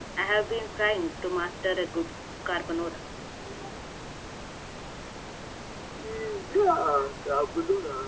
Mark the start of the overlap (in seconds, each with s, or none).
none